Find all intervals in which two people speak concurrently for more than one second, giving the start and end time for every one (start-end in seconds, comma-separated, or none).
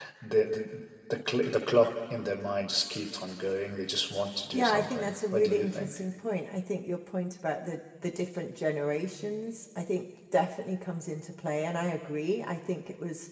4.5-5.9